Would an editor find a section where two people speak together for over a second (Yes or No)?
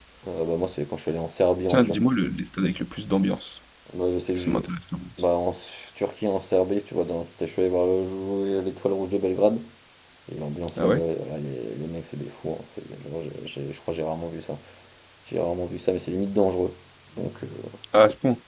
No